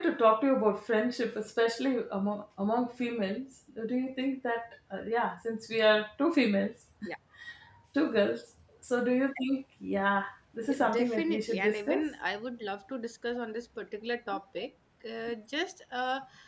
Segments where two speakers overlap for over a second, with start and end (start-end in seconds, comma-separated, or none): 10.6-12.0